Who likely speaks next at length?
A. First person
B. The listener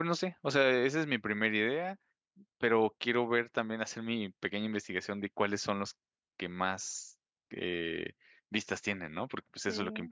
B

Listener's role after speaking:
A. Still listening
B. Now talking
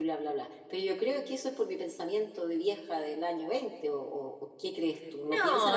B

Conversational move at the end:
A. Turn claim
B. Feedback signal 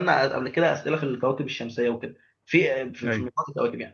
B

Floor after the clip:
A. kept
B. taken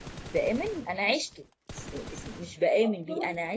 A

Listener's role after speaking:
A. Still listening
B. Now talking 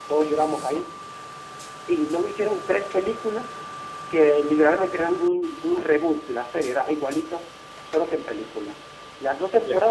A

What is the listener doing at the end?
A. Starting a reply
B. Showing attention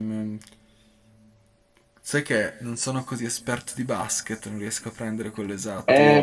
A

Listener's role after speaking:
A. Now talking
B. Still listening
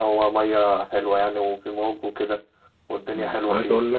A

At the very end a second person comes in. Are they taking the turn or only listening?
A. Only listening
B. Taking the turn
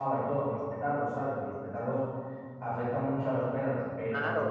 B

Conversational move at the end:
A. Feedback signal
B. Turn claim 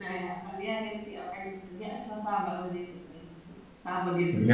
B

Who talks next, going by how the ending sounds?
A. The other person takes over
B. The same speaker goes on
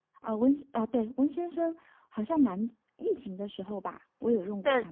A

